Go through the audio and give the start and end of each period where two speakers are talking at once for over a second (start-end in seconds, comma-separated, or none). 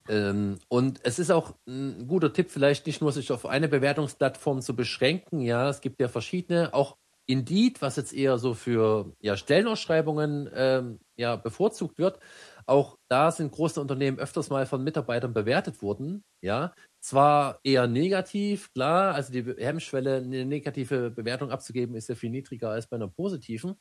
none